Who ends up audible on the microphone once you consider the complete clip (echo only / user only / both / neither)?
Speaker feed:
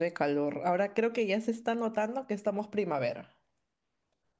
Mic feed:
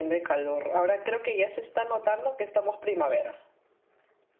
echo only